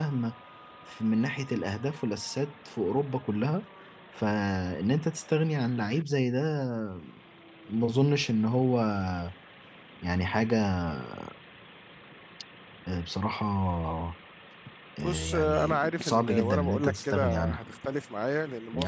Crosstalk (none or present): present